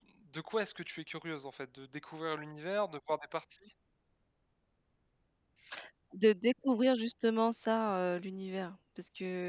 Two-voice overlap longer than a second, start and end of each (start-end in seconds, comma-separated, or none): none